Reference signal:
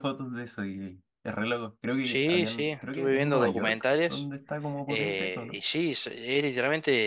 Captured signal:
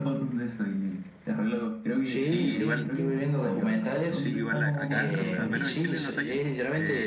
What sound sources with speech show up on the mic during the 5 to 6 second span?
both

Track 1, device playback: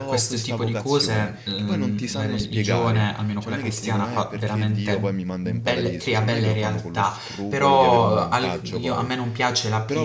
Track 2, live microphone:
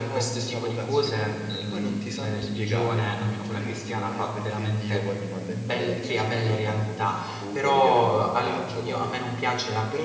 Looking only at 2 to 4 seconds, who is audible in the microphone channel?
echo only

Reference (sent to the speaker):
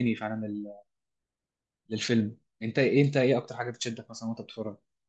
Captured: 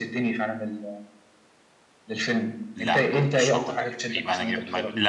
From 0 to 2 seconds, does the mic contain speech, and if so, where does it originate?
echo only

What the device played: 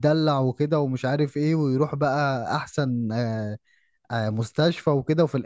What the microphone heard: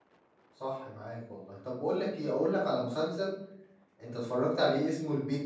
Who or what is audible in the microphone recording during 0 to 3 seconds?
user only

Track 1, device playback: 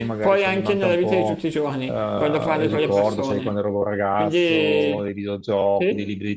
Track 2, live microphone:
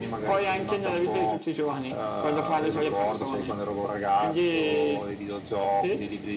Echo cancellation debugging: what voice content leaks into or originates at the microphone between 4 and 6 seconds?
echo only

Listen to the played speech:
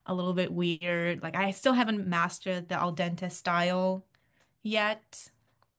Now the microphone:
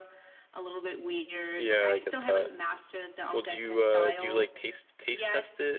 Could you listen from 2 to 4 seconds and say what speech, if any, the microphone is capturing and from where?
both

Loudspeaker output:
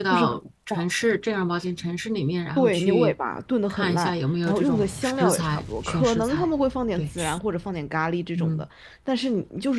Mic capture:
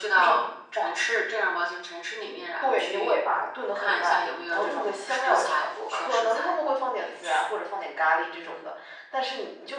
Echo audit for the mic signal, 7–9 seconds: echo only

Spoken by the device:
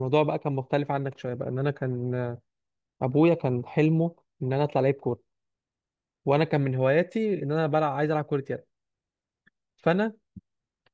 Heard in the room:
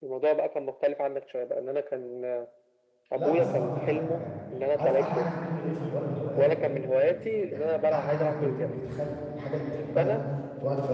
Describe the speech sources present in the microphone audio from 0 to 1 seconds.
echo only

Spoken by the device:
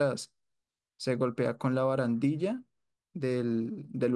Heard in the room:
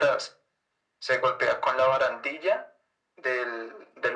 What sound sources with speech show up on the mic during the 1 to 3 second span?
echo only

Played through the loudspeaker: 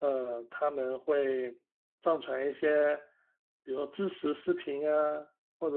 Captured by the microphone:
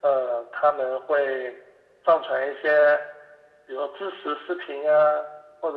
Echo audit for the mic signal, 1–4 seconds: echo only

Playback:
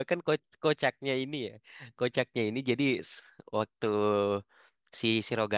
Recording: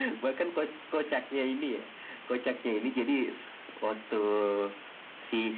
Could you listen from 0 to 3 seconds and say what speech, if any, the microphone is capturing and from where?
echo only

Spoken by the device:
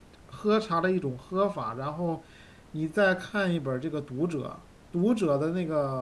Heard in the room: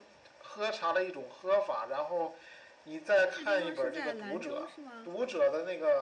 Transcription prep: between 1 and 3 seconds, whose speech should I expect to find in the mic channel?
echo only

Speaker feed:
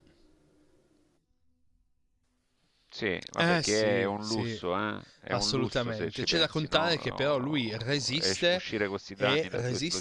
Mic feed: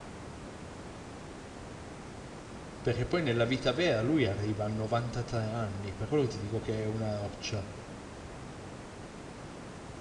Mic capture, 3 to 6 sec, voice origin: user only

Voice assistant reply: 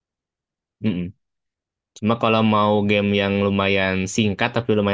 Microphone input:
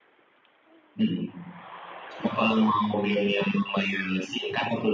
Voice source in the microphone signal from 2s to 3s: echo only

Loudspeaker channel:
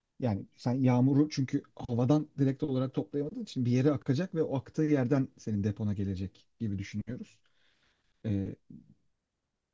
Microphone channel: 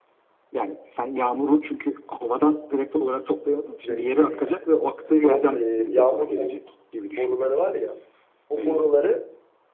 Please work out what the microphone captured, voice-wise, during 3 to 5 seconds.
both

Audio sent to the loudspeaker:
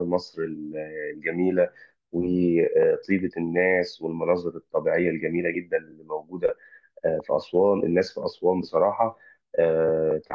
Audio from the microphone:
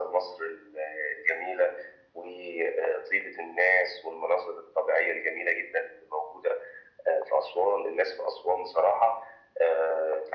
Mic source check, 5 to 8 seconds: echo only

